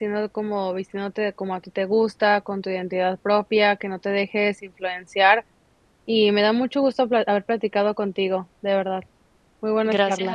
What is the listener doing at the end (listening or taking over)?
taking over